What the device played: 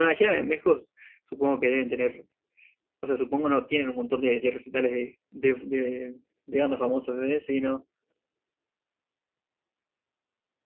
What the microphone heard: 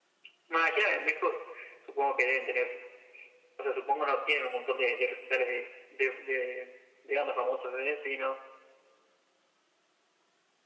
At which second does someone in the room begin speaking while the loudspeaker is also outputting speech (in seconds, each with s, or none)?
none